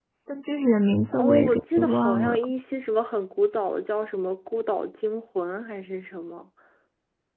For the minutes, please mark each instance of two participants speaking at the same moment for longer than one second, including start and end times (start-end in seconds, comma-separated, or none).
1.1-2.4